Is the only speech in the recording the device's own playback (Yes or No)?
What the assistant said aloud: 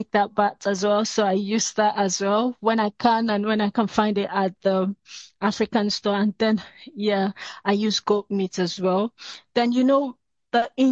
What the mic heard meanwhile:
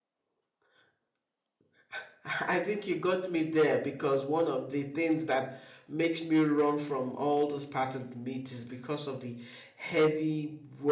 No